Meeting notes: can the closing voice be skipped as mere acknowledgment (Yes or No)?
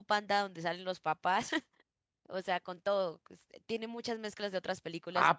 No